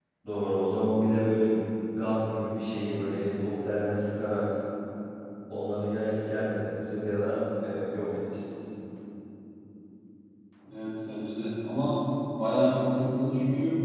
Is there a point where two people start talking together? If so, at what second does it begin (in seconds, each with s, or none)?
none